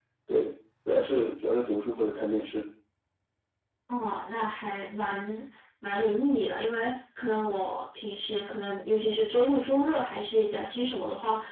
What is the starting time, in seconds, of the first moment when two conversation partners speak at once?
none

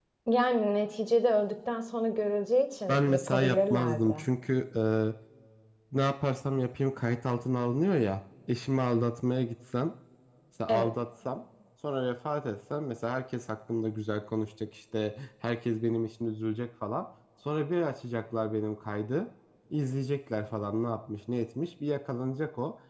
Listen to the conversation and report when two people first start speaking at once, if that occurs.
2.9 s

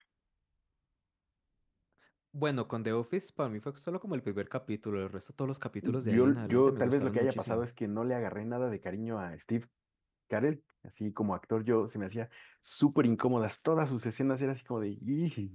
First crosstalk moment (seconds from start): 5.8 s

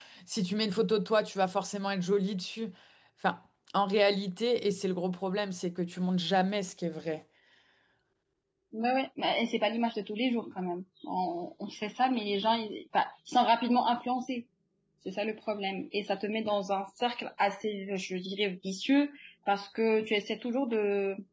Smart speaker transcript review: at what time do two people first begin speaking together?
none

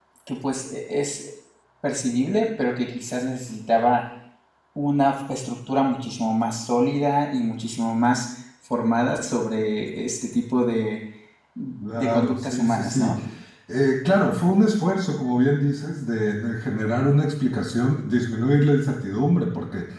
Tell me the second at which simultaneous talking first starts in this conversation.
11.9 s

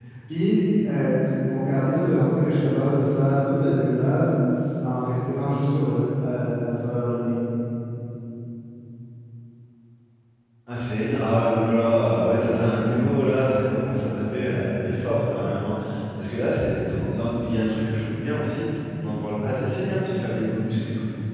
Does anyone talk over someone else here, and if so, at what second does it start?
none

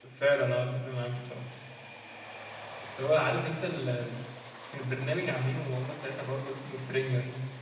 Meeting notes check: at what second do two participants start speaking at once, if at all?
none

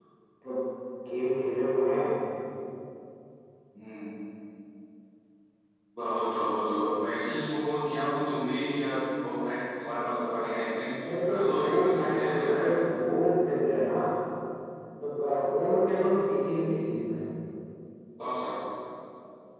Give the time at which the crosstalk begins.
11.3 s

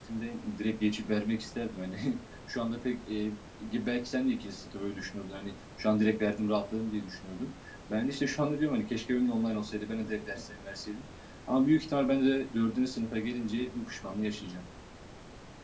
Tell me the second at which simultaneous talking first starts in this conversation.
none

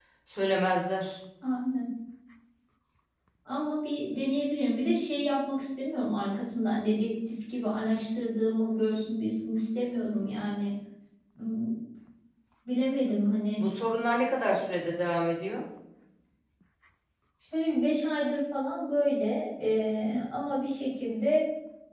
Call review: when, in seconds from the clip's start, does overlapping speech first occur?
none

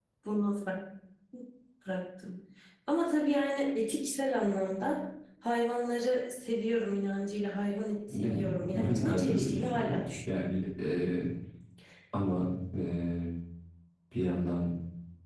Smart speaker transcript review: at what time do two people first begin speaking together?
8.1 s

